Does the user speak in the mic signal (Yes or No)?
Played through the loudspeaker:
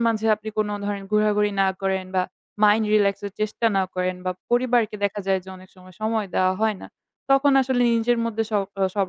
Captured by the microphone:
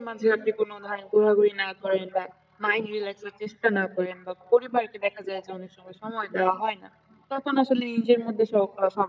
No